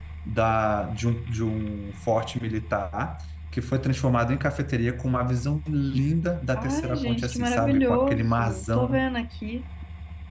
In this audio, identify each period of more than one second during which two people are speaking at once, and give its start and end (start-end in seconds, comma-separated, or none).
6.5-9.0